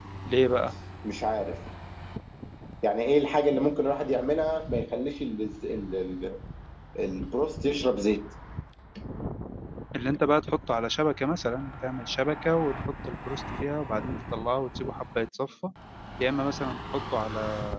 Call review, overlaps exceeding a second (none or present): none